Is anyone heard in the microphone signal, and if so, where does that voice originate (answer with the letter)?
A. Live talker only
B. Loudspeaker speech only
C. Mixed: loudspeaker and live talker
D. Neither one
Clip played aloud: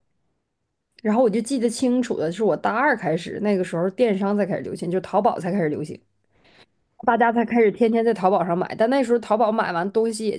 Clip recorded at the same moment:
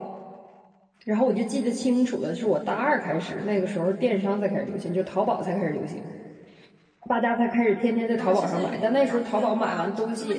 C